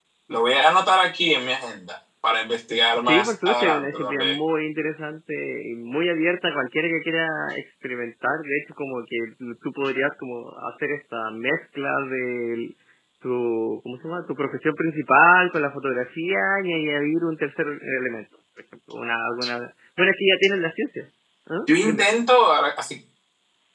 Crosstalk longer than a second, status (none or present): present